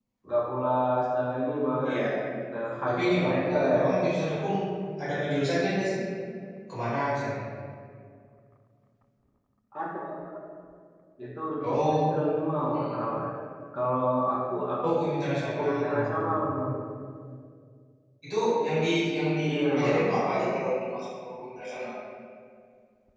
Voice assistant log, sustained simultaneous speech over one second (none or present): present